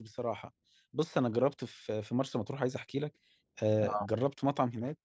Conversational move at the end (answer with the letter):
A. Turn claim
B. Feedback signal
B